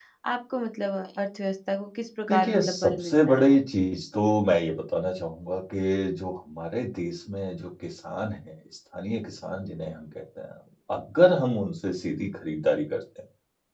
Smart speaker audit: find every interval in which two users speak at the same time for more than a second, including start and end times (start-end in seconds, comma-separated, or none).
2.3-3.9